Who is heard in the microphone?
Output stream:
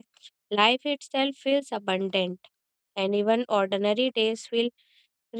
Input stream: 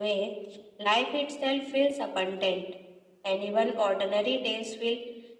echo only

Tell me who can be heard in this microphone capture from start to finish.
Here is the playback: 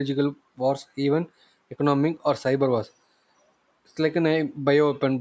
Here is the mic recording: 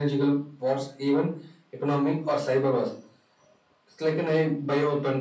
echo only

